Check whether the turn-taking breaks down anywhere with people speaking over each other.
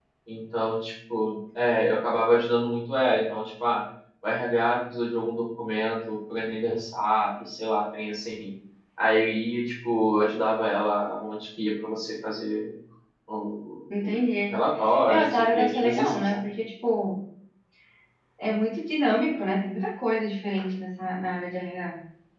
Yes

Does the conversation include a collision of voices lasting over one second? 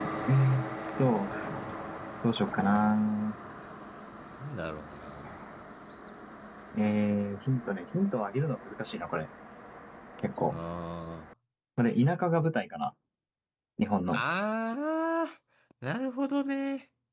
No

